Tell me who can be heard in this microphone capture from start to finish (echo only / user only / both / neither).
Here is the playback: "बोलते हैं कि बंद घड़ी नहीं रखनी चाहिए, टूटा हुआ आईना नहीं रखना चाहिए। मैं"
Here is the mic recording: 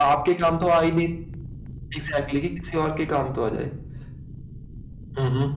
user only